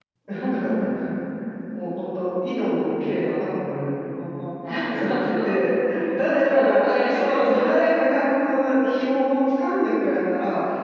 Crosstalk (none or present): present